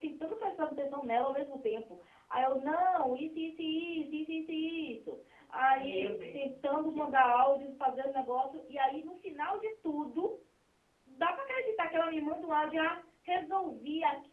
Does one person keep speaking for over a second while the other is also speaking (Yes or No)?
Yes